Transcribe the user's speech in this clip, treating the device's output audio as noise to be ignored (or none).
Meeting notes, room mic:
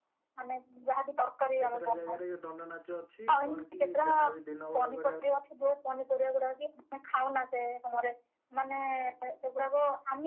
କେତେଟା ଜାଗାରେ ଦଣ୍ଡ ନାଚ ଅଛି କଣ କି ଯାହାବି ଦିନ ବେଳା କରିବା